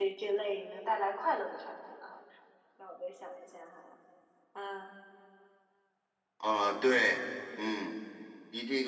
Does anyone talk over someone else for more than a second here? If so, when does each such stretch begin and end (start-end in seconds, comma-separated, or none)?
none